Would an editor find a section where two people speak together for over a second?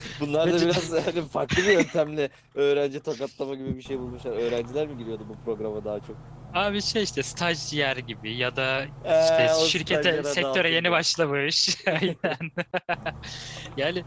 Yes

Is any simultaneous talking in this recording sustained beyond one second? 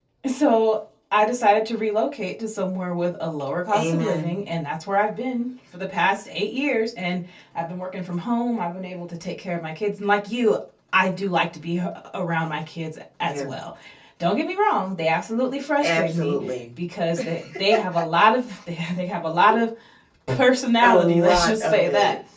Yes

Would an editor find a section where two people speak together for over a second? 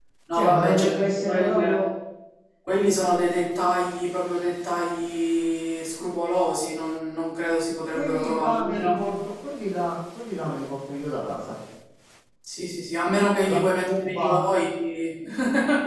Yes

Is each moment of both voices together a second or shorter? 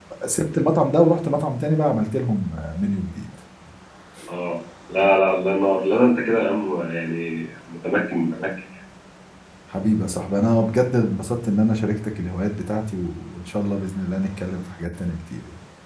Yes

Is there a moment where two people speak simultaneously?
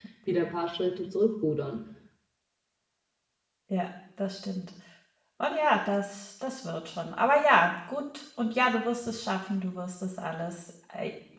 No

